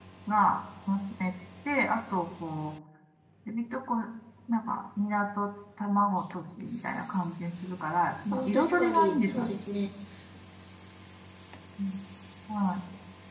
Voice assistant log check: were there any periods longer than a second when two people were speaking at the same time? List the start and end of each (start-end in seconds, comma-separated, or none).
8.3-9.6